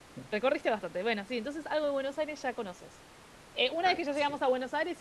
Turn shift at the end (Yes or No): No